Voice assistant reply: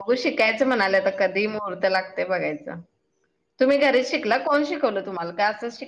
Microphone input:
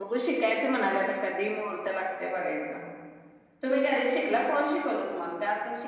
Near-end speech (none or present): none